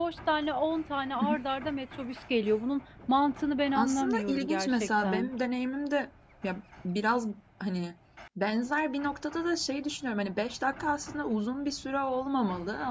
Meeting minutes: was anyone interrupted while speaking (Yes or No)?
Yes